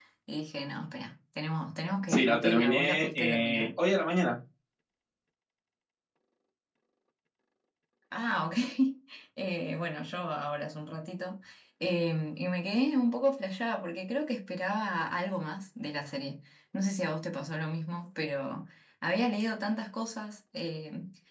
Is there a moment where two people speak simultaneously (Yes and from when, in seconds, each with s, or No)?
Yes, from 2.1 s